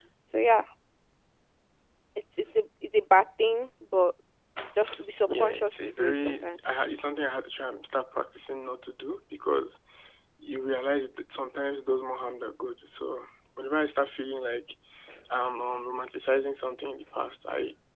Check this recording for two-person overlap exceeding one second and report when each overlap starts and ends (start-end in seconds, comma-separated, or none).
5.3-6.6